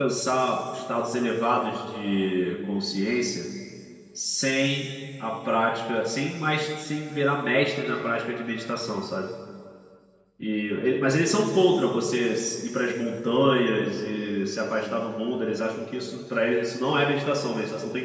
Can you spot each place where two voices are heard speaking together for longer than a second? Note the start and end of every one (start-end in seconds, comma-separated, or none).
none